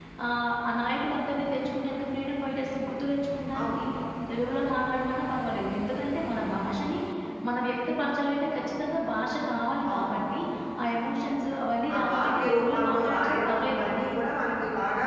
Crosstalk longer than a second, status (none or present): present